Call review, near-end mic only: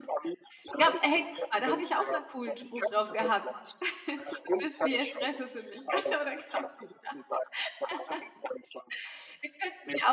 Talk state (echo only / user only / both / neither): both